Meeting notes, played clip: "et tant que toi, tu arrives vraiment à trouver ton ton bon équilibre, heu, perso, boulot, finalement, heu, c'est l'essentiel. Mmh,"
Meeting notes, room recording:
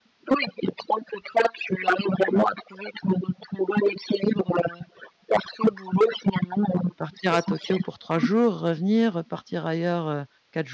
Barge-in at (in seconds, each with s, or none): 6.8 s